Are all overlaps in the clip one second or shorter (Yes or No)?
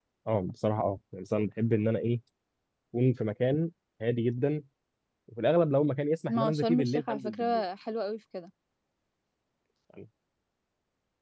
No